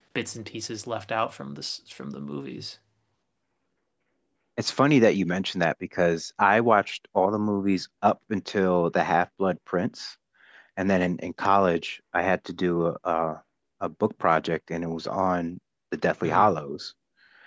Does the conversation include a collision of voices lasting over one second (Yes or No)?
No